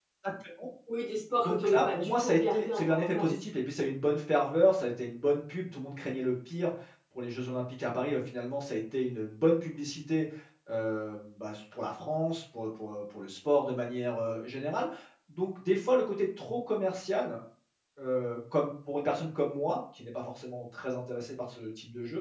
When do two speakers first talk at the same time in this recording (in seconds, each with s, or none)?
1.4 s